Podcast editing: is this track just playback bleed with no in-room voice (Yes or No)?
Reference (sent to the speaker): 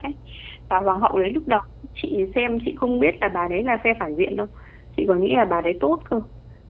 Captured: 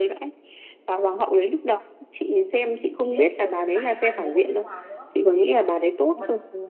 No